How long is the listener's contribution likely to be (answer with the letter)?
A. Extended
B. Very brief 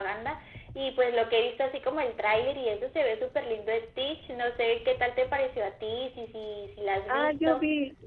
A